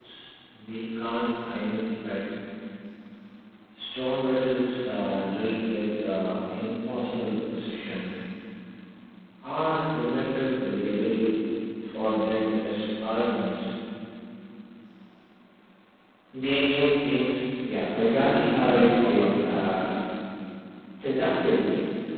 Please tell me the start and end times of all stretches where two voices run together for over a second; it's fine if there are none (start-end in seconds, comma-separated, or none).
18.2-19.5